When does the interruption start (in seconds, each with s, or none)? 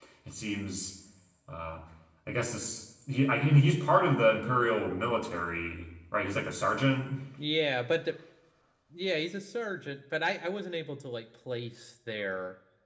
none